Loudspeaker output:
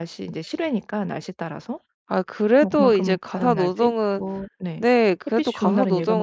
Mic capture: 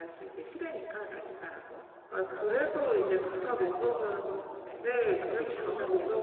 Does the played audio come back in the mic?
Yes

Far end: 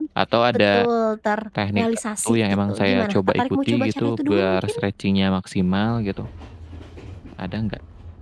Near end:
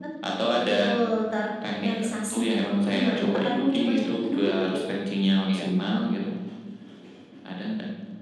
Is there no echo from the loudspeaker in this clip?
No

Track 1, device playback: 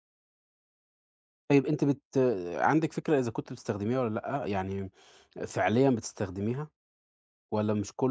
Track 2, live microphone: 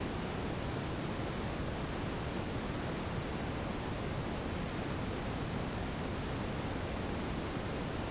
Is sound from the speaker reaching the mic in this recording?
No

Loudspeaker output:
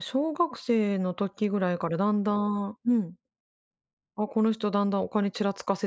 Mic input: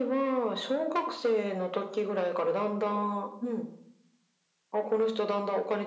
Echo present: Yes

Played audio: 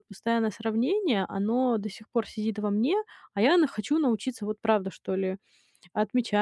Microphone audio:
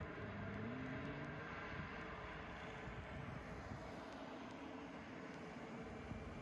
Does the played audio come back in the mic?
No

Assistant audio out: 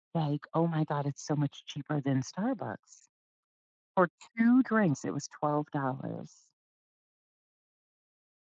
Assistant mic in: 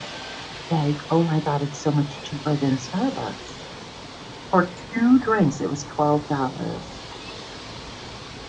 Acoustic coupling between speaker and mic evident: Yes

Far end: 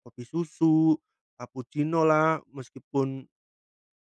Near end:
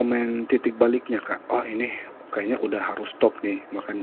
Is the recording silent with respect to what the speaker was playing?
Yes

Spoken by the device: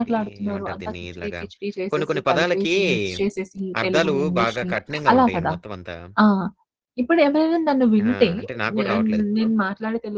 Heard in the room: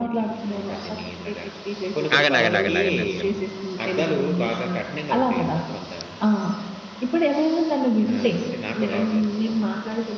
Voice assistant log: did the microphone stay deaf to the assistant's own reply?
No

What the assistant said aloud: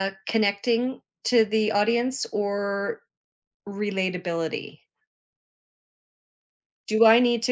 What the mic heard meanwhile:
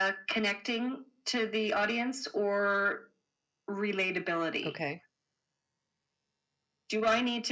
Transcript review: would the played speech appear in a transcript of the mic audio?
Yes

